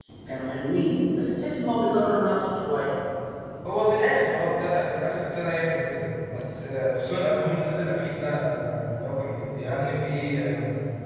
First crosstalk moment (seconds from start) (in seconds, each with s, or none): none